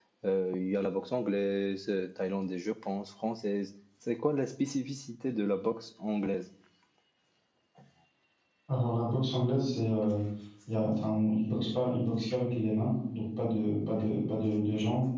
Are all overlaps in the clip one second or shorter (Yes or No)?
Yes